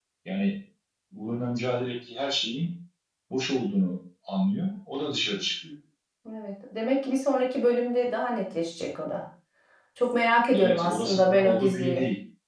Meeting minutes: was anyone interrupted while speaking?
Yes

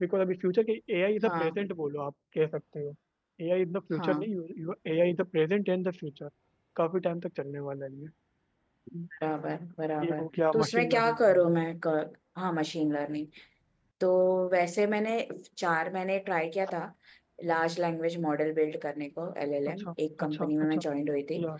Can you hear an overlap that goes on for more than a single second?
Yes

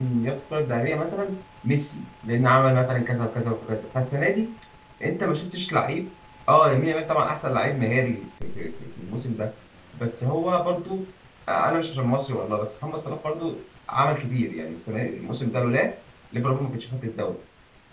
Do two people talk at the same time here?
No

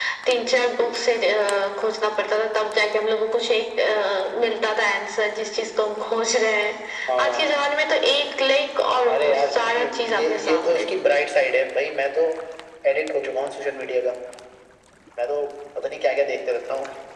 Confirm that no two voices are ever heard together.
No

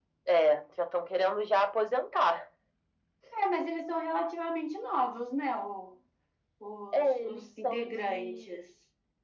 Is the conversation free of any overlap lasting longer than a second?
No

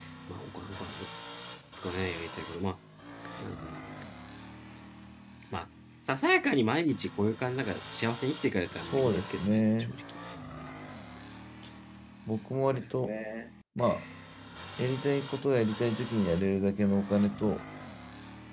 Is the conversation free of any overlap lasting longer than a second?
No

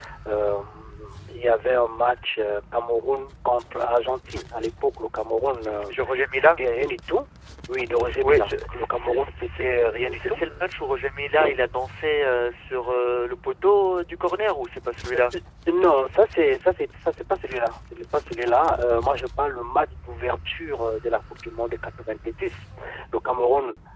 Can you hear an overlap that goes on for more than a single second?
Yes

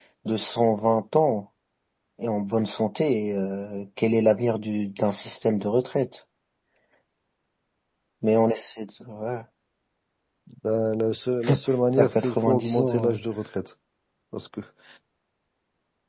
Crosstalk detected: Yes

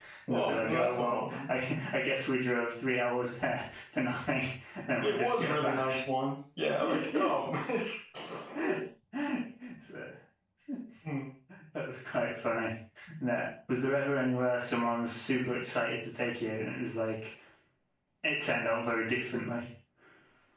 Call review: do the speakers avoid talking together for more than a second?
No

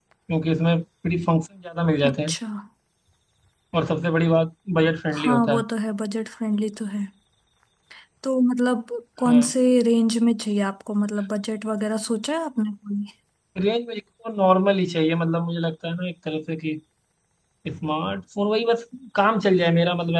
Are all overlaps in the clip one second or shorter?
Yes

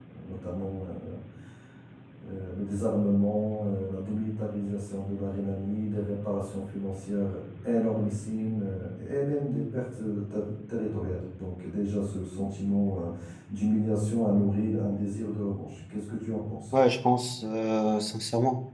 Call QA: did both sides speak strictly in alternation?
Yes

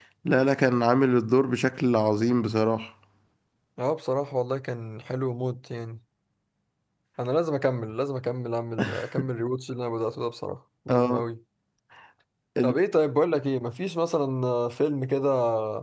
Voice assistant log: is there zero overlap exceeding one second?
Yes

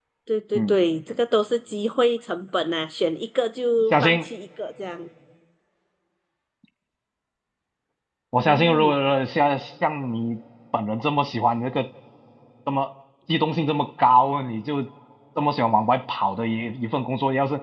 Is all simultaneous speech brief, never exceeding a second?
Yes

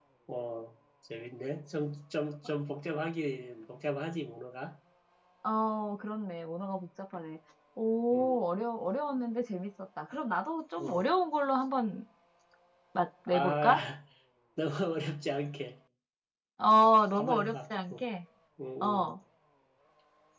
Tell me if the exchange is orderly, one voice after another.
No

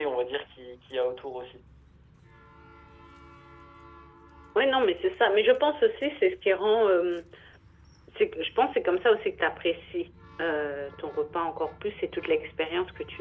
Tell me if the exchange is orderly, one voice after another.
Yes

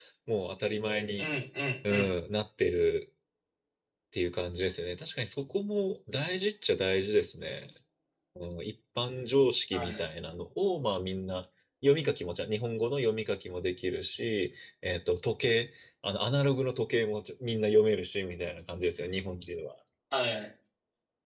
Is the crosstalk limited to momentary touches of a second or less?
Yes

